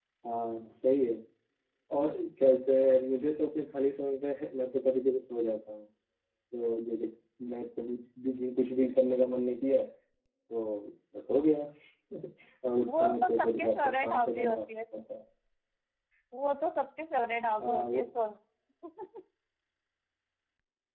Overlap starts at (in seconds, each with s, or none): 12.9 s